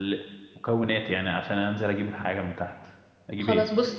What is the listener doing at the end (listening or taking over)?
taking over